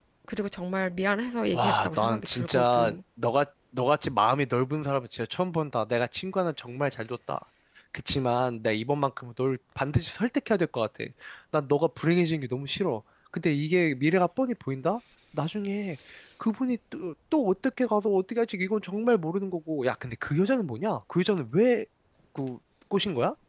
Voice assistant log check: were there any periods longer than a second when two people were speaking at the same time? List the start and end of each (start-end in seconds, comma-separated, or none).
1.5-3.0